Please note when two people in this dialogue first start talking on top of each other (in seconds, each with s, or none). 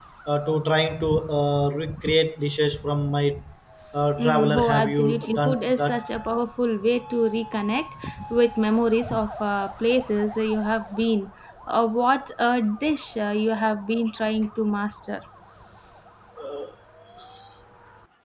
4.2 s